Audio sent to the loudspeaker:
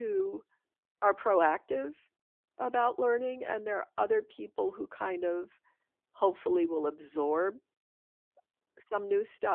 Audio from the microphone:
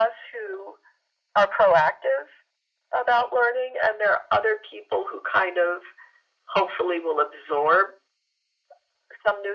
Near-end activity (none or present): none